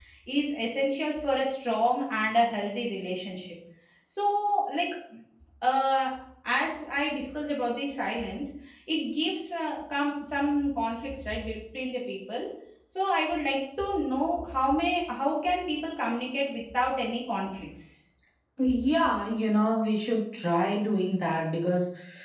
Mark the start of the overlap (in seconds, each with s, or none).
none